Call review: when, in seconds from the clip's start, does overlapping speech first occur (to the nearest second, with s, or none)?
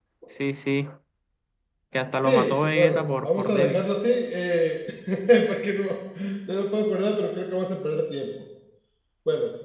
2 s